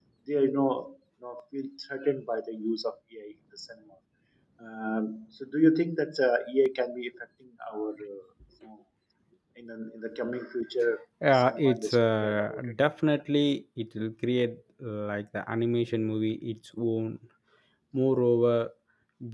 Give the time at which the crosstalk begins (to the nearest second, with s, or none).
11 s